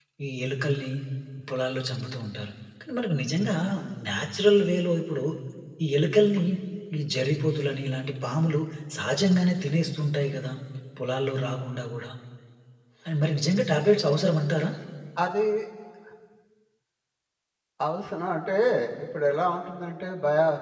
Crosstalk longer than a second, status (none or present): none